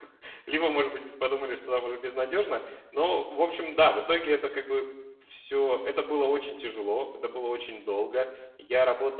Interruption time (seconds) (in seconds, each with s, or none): none